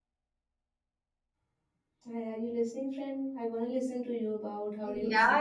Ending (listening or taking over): taking over